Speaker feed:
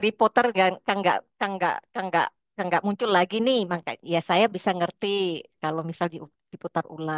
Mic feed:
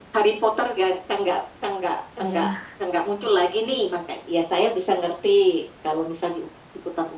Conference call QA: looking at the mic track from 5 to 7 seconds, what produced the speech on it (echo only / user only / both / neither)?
echo only